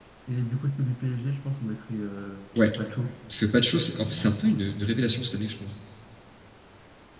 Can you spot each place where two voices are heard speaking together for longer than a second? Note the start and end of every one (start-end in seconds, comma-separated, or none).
none